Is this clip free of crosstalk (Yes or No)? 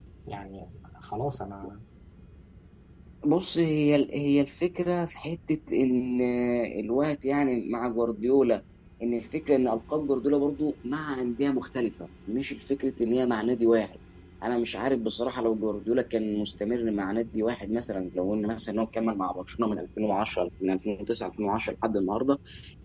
Yes